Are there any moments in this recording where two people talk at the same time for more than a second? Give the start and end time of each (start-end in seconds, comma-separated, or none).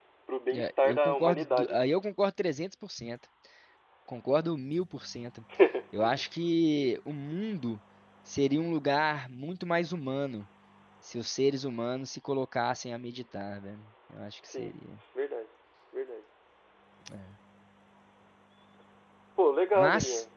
0.5-1.8